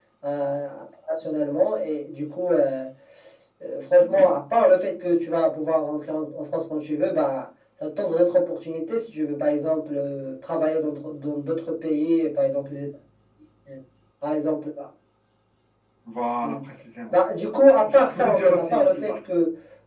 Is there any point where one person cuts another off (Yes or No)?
Yes